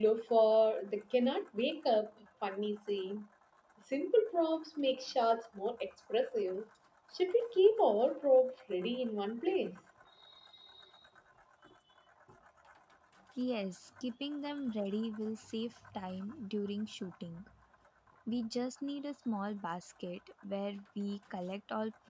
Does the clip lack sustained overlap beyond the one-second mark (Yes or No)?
Yes